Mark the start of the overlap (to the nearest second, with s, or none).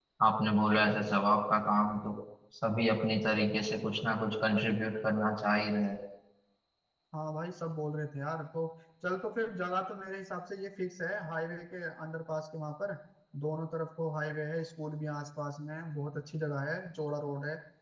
none